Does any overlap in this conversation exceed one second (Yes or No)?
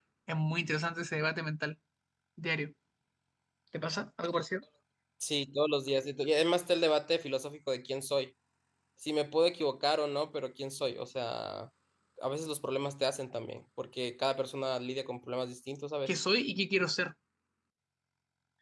No